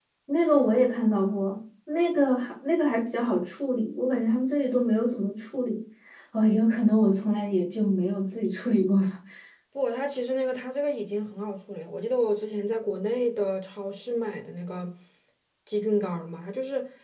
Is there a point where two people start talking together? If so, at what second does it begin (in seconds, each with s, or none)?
none